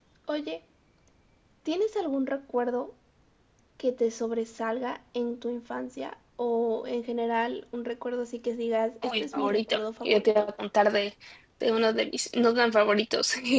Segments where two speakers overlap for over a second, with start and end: 9.1-10.5

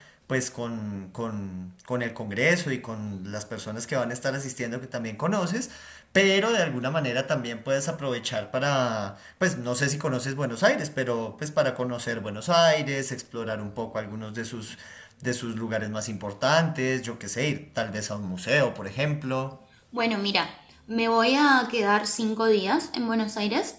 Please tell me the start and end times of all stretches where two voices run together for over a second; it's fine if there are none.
none

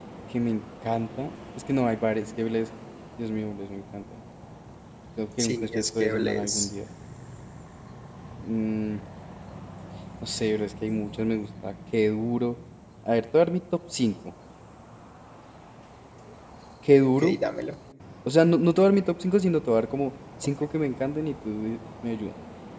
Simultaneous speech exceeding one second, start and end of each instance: 5.5-6.7

